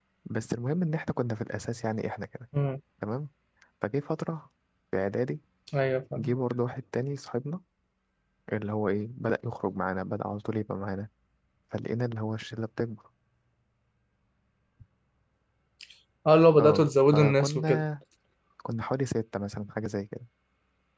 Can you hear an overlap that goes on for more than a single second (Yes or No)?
Yes